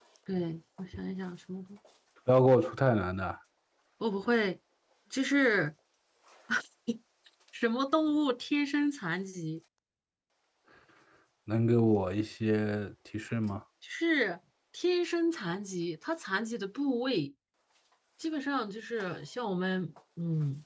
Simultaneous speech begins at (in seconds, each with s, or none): none